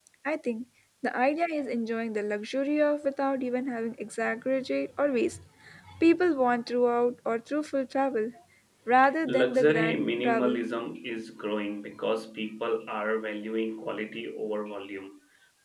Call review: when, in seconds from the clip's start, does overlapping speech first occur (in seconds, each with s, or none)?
9.3 s